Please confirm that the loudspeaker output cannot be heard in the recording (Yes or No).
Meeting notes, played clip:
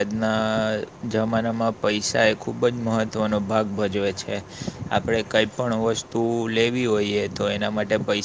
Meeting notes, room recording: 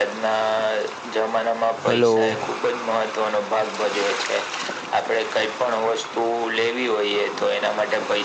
No